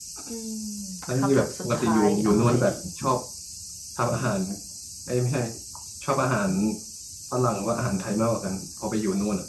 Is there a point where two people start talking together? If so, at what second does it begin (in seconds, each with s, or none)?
1.2 s